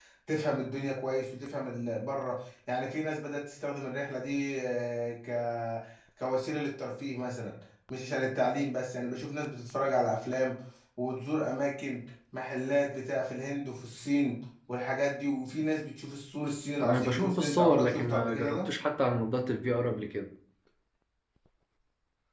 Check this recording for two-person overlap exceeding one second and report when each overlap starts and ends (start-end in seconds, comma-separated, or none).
16.8-18.7